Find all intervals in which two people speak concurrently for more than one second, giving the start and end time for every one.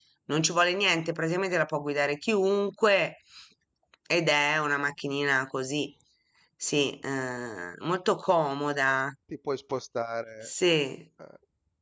none

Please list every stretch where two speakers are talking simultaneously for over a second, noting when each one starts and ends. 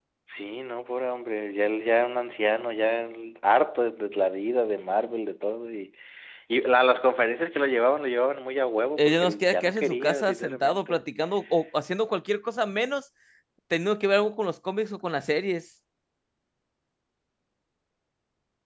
9.0-11.0

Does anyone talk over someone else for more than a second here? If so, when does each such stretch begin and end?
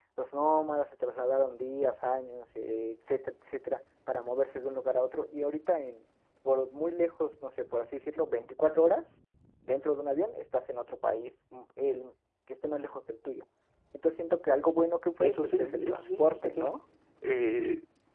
15.2-16.6

